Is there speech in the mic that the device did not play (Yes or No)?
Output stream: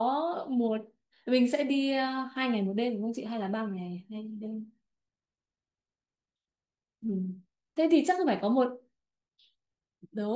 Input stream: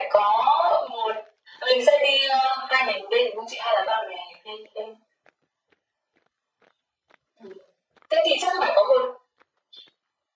No